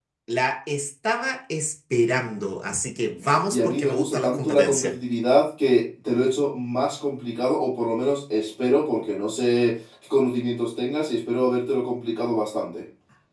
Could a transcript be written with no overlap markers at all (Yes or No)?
No